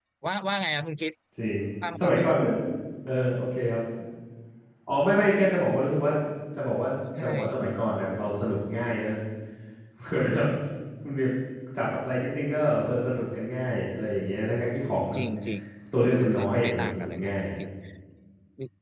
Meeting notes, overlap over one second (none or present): present